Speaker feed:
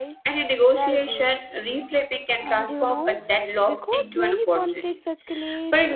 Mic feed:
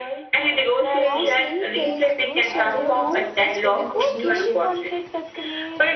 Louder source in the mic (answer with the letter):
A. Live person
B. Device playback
B